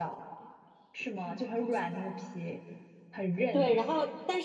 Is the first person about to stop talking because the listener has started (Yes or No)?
Yes